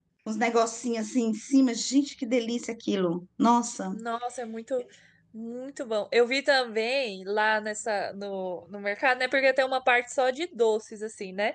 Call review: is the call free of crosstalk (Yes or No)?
Yes